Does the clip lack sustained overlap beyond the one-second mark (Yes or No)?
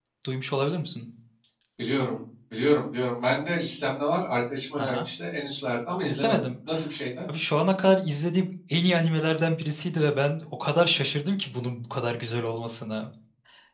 Yes